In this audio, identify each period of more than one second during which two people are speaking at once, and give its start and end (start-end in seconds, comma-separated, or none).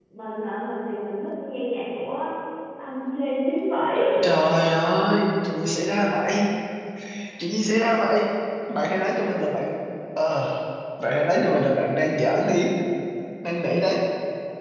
none